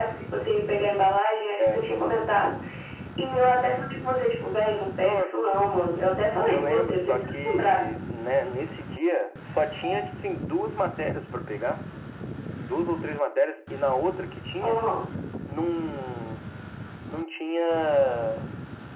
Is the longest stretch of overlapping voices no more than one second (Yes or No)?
No